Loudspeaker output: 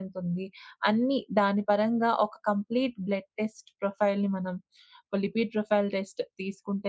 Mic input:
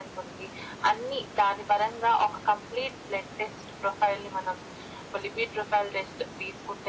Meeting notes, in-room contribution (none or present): none